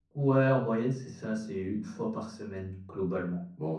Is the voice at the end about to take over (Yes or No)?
Yes